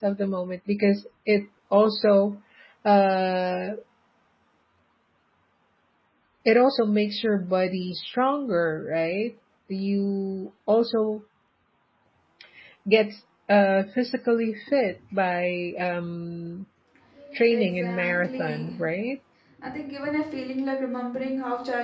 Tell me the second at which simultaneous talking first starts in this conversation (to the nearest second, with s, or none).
18 s